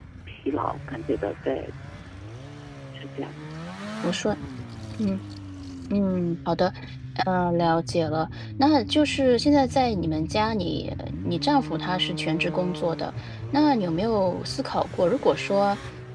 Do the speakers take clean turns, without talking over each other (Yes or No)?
Yes